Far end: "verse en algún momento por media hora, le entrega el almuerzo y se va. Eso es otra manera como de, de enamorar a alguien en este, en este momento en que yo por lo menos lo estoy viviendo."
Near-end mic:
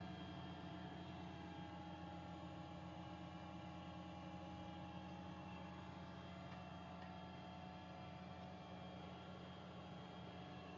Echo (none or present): none